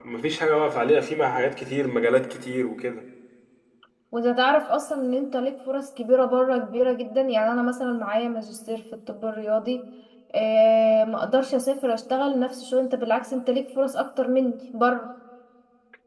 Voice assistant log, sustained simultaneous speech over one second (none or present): none